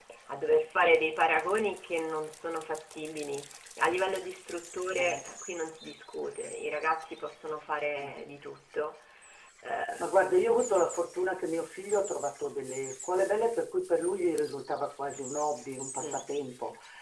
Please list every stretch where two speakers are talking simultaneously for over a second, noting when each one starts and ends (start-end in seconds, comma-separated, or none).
none